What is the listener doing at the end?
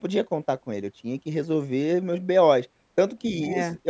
listening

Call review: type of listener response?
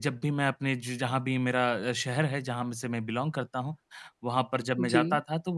listening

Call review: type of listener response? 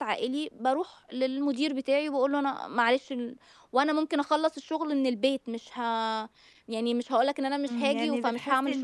taking over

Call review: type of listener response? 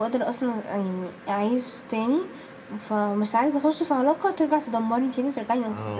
taking over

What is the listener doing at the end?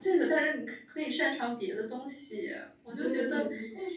taking over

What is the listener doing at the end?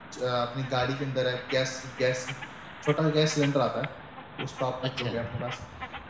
listening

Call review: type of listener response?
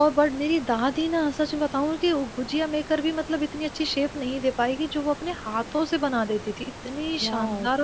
taking over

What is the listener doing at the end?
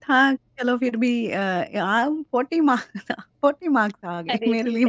taking over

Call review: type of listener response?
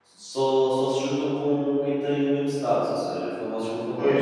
taking over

